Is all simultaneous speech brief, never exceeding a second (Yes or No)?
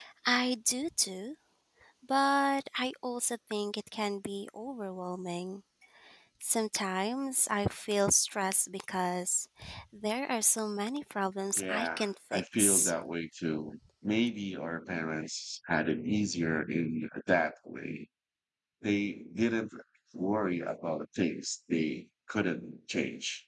No